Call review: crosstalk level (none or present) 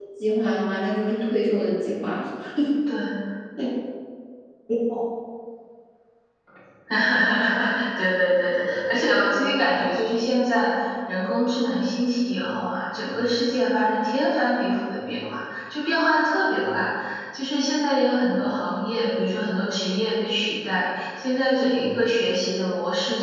none